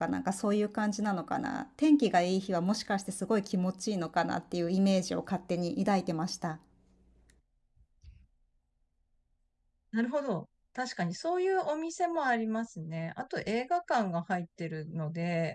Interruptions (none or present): none